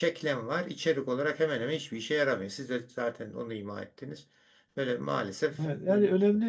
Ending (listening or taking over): taking over